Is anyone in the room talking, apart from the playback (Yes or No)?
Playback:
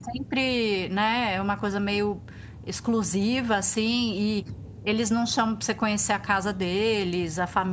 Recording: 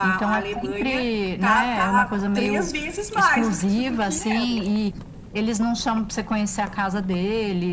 Yes